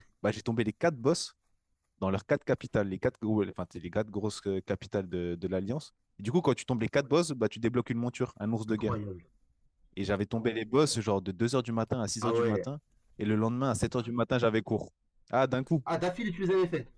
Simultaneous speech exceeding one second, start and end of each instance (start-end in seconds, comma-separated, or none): none